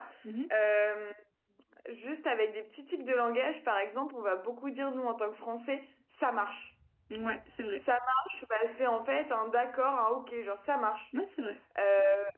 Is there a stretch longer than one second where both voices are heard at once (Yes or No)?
No